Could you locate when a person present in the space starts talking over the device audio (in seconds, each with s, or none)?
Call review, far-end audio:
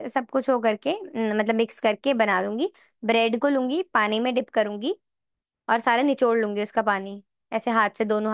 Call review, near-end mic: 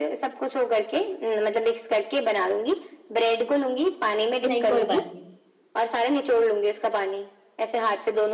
4.4 s